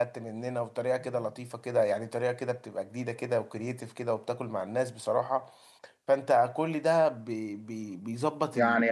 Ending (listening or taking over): taking over